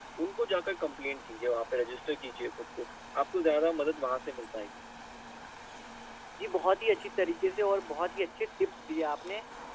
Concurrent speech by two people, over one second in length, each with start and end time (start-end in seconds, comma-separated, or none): none